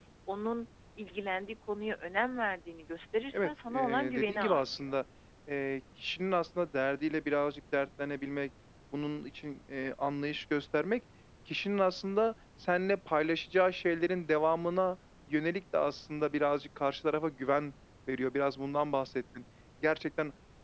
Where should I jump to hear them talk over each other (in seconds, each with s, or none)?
3.3 s